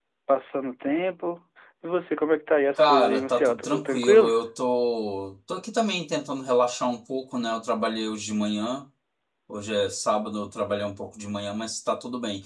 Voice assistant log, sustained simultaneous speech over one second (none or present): present